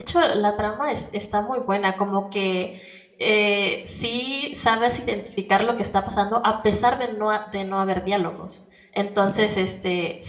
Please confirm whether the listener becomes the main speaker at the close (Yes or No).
No